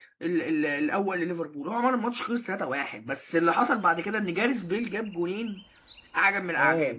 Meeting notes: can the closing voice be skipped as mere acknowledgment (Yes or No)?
Yes